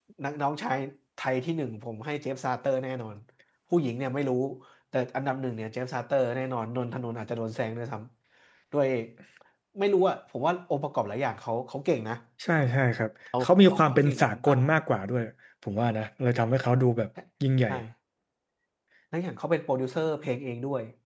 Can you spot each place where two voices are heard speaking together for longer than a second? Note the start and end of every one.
13.4-14.7

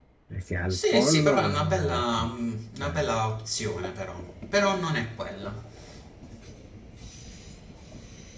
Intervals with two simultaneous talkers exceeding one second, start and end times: 0.7-2.3

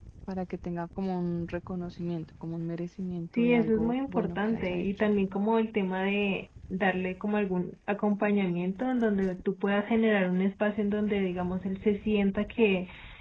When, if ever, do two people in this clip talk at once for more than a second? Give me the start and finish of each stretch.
3.3-4.9

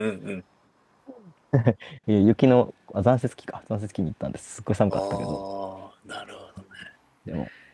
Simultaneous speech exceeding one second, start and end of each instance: none

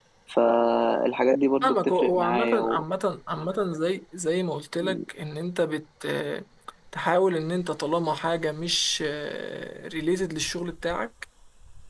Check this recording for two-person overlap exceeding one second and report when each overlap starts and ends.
1.6-2.8

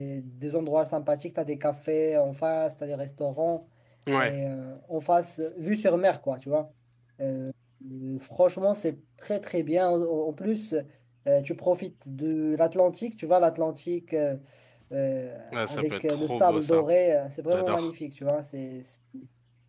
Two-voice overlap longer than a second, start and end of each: 15.5-16.8

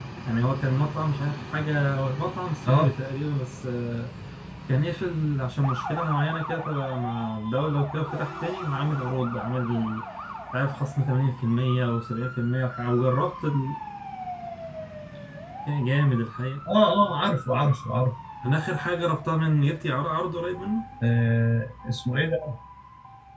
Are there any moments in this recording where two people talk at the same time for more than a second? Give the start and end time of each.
none

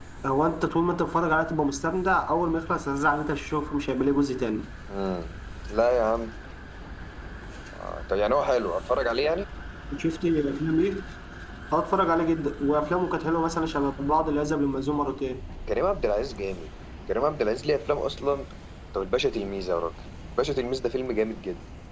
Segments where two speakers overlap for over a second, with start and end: none

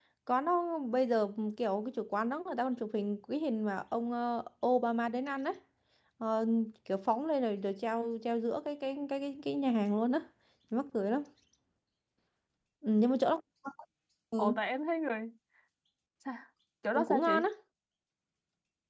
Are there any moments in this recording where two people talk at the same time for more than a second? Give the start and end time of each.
none

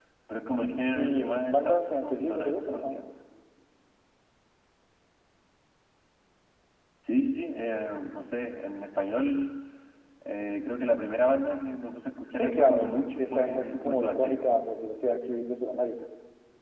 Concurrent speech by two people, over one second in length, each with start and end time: 0.6-2.8, 12.3-14.4

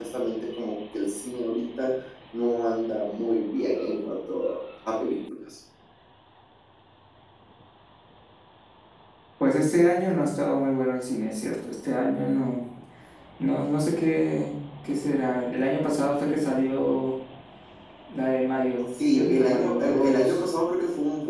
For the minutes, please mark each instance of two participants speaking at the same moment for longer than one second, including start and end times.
19.1-20.4

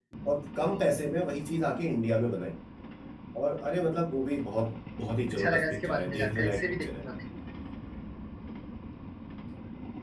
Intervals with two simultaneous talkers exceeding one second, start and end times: 5.3-7.0

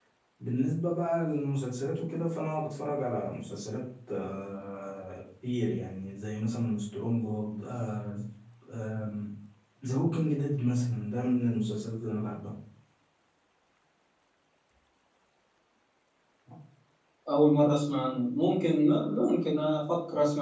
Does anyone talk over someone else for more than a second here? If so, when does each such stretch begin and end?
none

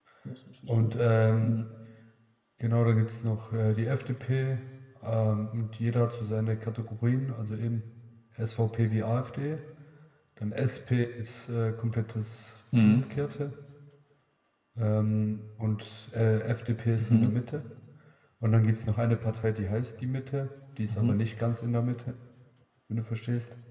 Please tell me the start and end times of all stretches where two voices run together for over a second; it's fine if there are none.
none

